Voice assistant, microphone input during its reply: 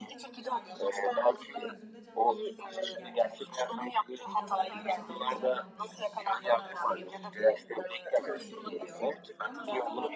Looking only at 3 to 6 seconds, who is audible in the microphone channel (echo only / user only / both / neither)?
both